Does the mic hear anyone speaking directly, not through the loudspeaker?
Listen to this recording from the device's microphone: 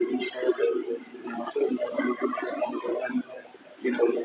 No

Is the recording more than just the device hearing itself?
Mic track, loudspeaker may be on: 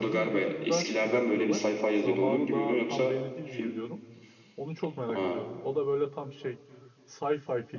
Yes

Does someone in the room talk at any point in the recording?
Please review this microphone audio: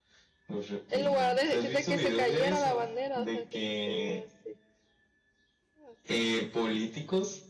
Yes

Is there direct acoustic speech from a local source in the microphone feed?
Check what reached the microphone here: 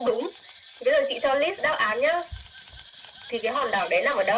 No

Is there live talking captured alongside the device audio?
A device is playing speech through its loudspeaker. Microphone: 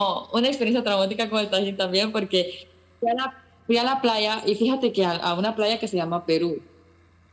No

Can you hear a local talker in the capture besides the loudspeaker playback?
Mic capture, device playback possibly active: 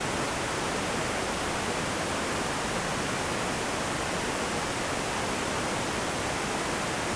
No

